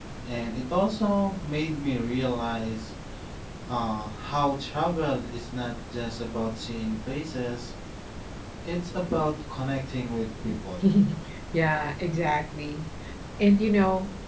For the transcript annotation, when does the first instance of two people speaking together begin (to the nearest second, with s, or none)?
none